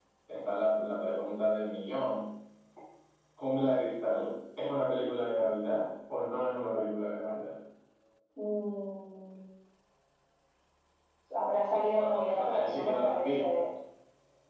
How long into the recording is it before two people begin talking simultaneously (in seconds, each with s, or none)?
11.9 s